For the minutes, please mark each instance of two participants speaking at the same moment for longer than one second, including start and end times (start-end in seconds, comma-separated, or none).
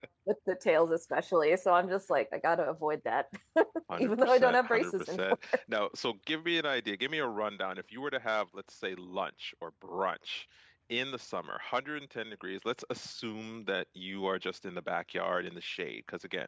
4.0-5.2